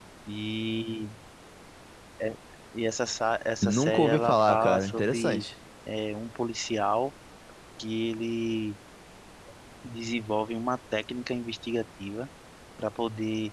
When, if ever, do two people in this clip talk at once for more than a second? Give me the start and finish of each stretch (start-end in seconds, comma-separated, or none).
3.6-5.5